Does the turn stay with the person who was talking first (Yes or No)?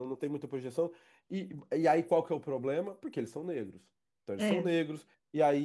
Yes